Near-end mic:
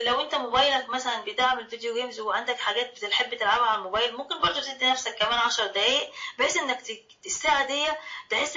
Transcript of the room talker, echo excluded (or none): none